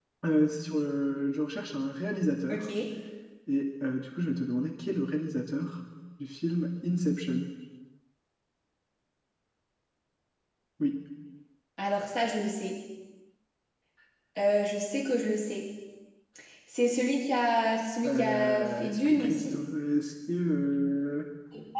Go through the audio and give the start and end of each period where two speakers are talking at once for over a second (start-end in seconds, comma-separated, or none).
18.1-19.5